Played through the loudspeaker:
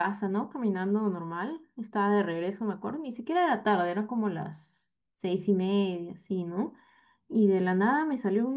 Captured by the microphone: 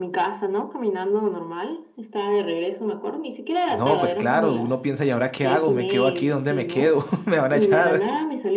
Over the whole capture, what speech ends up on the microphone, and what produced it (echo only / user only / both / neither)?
both